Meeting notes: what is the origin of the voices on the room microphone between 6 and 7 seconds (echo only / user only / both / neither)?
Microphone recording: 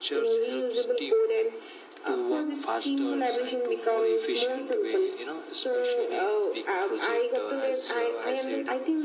echo only